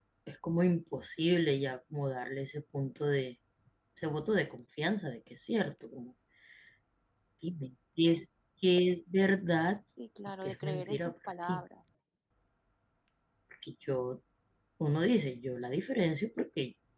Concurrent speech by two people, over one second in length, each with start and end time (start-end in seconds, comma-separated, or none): 10.4-11.6